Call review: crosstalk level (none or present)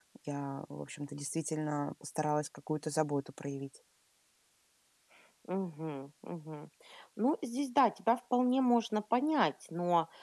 none